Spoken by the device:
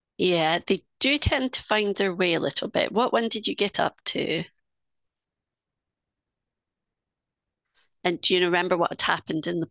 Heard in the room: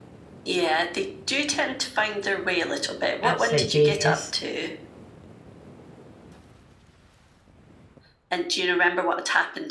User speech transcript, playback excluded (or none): absolute genius.